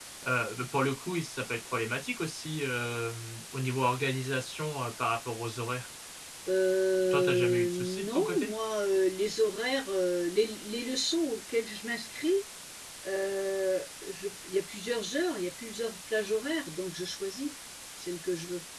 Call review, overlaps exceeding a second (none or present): present